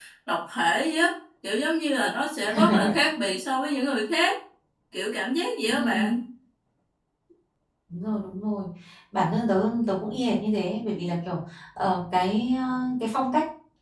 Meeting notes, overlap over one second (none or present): none